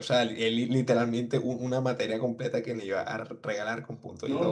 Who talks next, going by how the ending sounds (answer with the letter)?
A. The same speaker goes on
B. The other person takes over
B